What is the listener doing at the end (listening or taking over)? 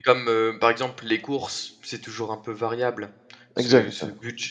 listening